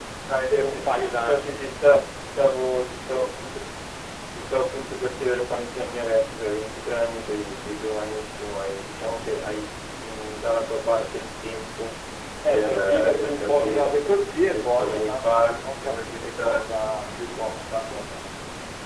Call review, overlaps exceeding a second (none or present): present